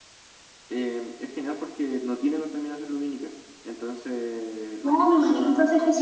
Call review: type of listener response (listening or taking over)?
taking over